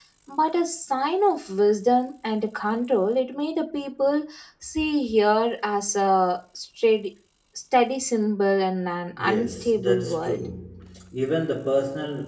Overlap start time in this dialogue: 9.1 s

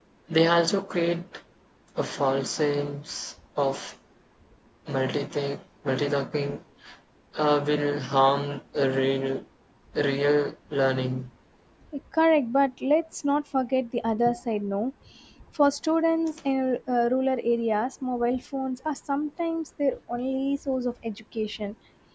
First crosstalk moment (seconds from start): none

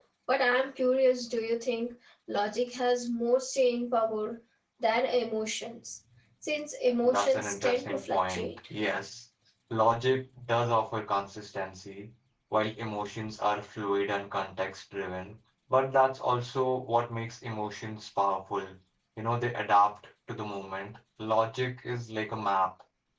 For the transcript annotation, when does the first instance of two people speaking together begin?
7.0 s

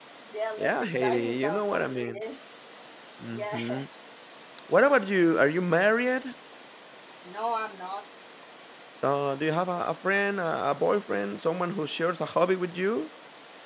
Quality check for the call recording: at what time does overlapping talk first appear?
0.6 s

